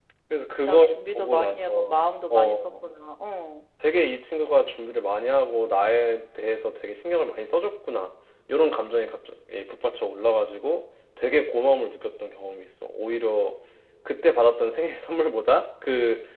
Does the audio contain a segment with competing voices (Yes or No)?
Yes